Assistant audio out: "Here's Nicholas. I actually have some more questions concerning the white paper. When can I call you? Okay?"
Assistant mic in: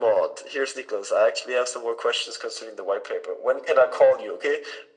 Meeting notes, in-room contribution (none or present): none